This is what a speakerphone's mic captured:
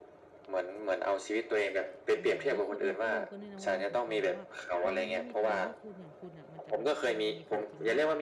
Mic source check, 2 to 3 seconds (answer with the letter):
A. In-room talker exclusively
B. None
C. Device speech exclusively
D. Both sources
D